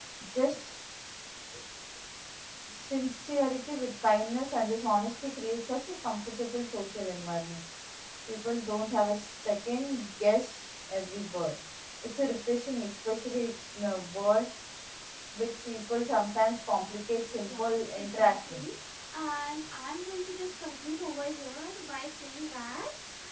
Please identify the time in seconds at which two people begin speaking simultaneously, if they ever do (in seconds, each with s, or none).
17.3 s